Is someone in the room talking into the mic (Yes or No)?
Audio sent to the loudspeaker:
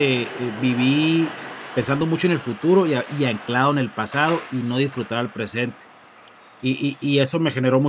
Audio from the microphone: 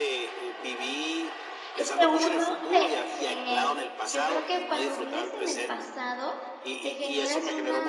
Yes